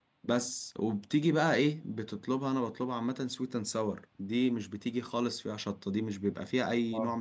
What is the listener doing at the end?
listening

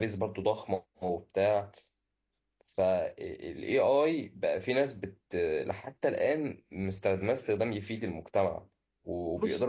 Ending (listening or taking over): listening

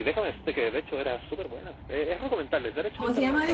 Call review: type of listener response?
taking over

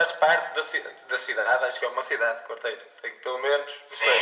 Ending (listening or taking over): taking over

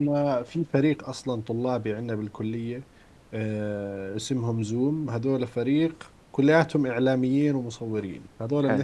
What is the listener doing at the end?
listening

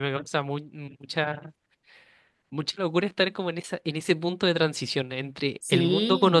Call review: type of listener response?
listening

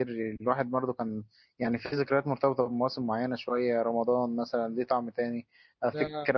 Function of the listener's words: listening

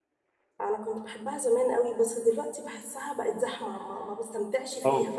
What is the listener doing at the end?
taking over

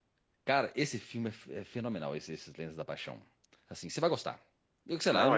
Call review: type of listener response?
listening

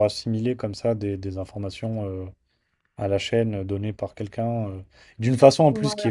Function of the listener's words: listening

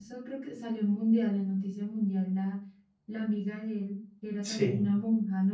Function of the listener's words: listening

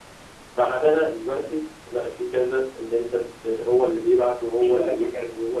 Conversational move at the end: listening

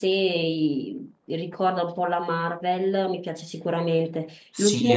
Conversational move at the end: taking over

